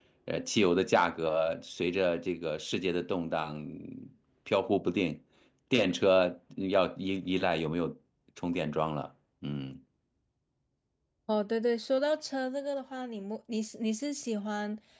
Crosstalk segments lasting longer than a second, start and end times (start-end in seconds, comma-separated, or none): none